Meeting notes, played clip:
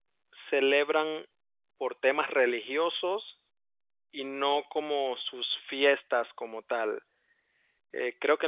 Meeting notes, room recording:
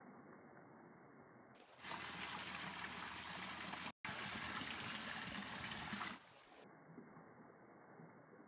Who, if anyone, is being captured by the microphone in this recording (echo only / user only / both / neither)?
neither